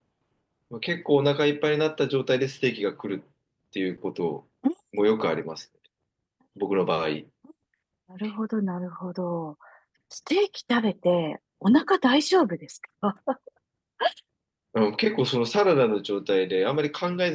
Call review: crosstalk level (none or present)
none